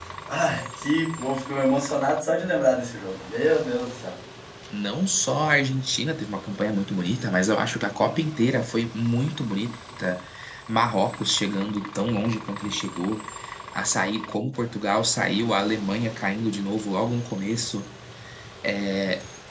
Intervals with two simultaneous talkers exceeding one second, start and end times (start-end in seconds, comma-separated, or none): none